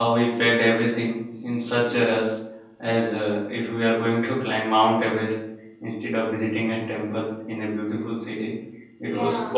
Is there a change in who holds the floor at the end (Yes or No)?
No